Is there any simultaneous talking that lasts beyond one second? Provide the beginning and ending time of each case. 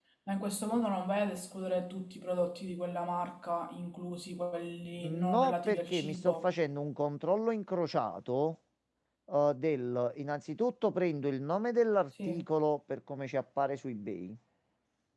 5.0-6.5

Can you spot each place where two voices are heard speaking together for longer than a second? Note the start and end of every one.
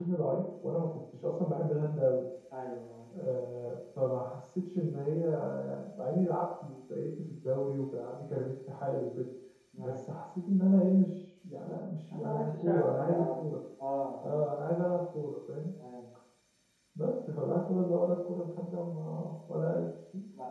12.1-13.4

